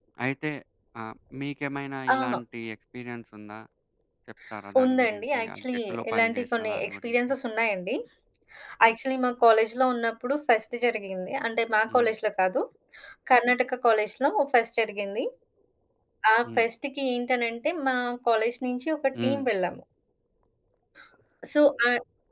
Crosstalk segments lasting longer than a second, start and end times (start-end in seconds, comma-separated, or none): 4.8-7.2